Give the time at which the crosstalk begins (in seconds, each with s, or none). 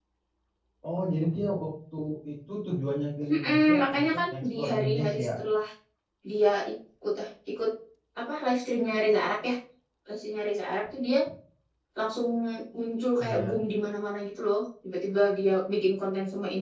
3.3 s